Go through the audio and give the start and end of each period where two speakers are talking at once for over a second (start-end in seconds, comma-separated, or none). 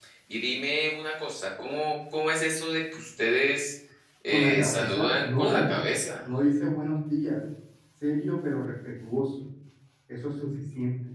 4.3-5.9